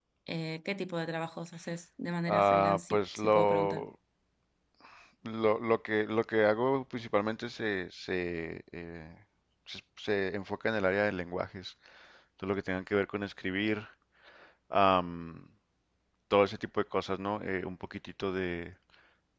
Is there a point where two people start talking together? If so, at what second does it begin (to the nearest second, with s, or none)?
2 s